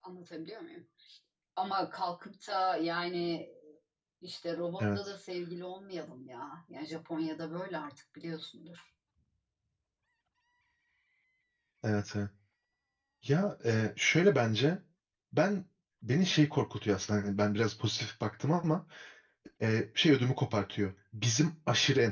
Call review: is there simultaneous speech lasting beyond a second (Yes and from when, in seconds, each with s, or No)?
No